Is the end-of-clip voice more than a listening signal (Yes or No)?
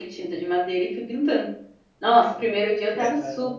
No